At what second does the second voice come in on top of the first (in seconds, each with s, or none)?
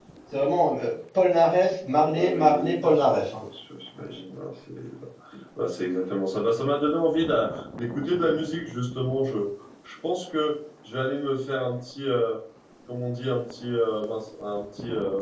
1.9 s